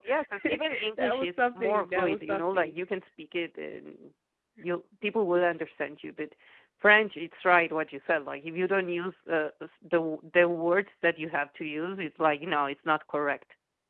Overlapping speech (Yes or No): Yes